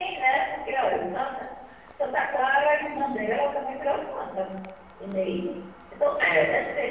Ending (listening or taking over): listening